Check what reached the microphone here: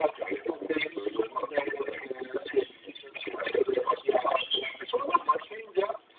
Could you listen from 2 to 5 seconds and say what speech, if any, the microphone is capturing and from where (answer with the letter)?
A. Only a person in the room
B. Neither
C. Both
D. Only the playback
D